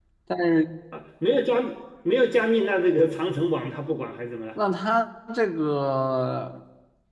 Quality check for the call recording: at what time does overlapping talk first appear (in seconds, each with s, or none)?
none